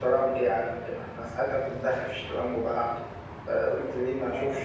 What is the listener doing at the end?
taking over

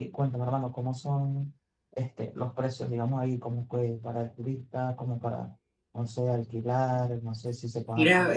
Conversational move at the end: taking over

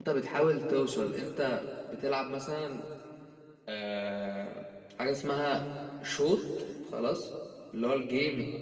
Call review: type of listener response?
listening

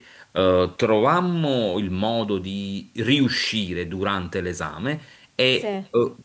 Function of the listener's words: listening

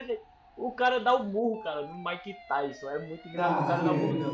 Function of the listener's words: listening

